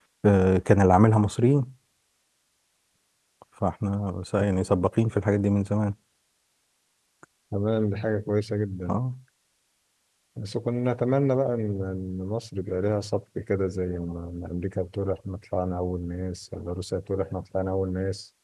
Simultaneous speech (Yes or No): No